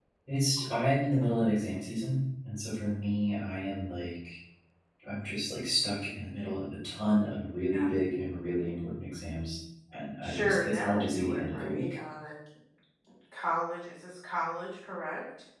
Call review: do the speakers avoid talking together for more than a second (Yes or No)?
No